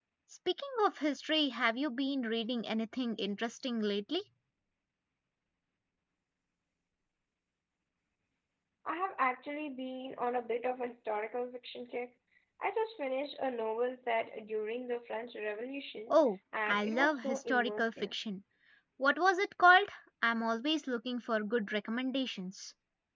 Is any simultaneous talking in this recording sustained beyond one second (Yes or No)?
Yes